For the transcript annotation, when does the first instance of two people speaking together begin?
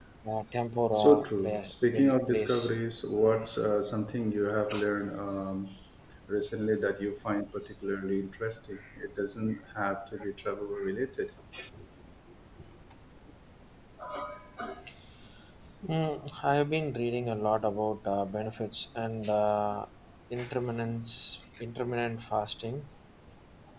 0.9 s

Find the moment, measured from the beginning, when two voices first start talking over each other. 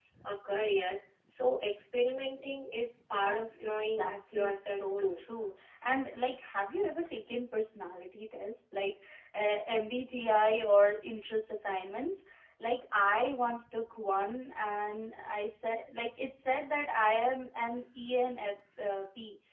3.2 s

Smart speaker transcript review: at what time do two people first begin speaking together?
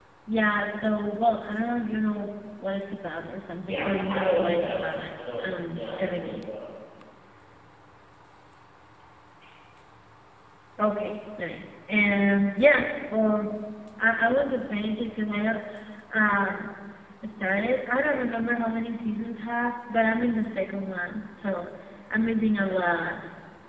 3.6 s

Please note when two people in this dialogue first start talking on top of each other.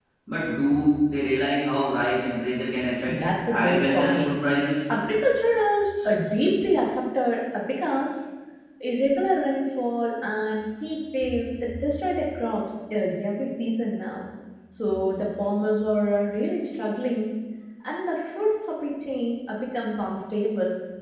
3.1 s

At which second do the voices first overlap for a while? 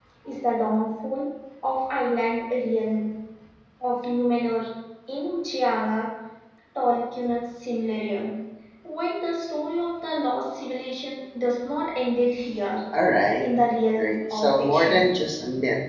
14.0 s

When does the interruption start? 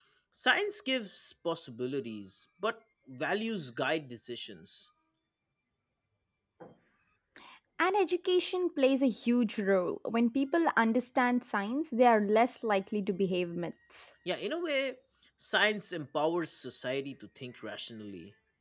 none

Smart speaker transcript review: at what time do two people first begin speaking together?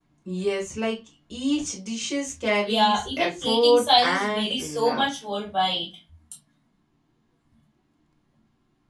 2.6 s

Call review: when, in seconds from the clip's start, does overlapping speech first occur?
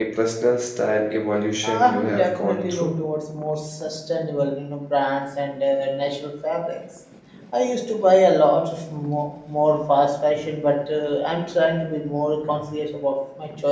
1.6 s

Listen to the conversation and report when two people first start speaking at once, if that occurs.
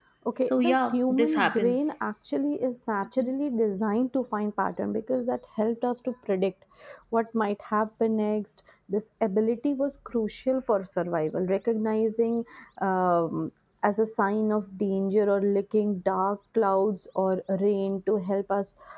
0.5 s

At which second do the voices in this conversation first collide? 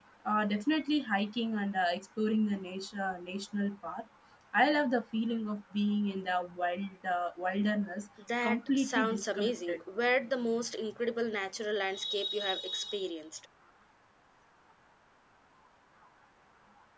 8.2 s

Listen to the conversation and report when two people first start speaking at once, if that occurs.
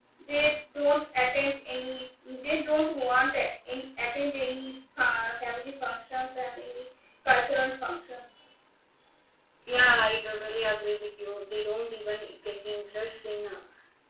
none

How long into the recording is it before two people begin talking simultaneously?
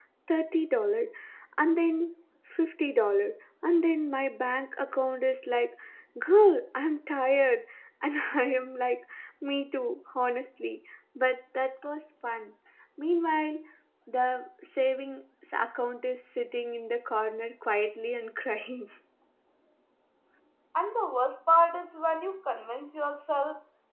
none

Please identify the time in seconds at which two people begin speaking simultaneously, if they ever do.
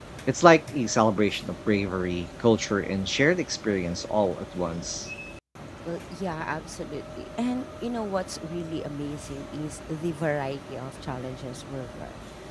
none

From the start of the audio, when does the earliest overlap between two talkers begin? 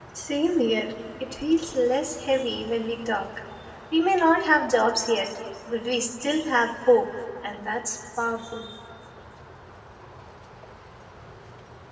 none

